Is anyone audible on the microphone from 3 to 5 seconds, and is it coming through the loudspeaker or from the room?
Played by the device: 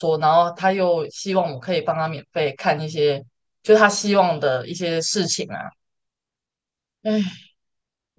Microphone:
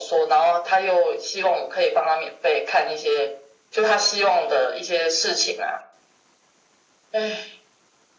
echo only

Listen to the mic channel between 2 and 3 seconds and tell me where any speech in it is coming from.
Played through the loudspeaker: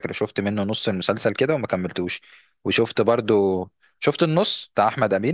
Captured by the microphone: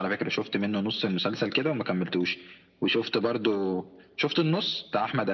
echo only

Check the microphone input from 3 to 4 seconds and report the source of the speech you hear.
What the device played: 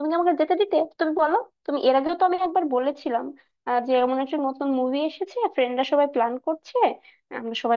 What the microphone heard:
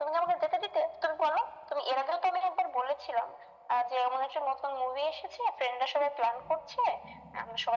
echo only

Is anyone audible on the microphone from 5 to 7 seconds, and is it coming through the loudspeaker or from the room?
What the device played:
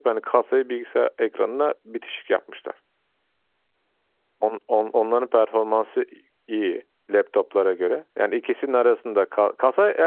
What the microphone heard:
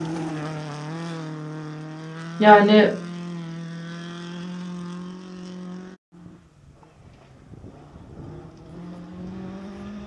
neither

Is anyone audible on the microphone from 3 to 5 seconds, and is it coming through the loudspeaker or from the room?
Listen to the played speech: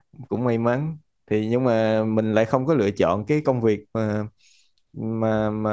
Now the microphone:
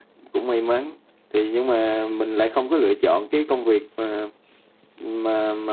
echo only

